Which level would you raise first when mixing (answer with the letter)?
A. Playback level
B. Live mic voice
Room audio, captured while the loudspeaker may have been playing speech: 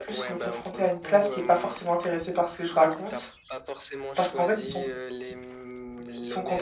A